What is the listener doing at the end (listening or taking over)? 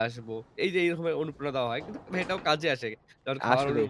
listening